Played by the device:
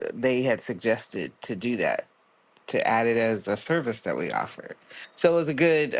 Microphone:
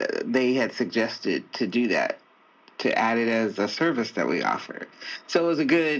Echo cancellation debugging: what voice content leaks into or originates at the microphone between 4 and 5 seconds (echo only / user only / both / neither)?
echo only